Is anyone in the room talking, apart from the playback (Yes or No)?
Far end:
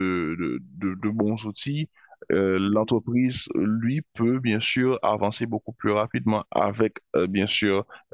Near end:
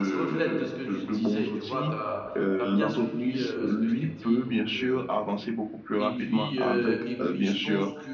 Yes